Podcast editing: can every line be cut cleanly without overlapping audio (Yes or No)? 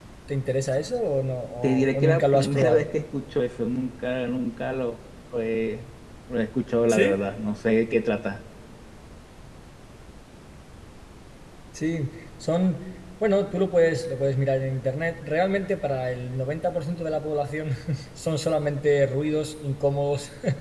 No